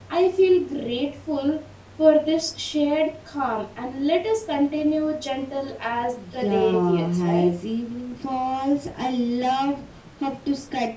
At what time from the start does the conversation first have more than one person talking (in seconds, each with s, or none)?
6.2 s